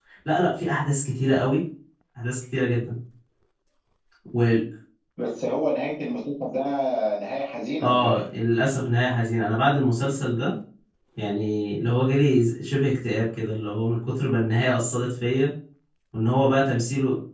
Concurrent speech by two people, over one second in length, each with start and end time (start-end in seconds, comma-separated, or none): none